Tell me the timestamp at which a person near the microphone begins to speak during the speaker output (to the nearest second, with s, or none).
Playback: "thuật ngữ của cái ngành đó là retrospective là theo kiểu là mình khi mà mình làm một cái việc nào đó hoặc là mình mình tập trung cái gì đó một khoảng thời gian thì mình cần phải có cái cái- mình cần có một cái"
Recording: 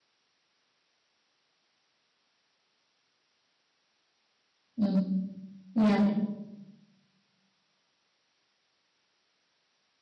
5 s